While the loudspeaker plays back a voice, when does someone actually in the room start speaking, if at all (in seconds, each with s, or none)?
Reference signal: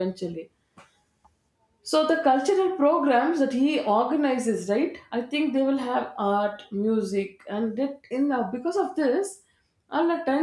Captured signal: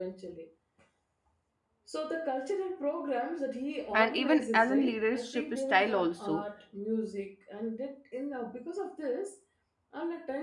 3.9 s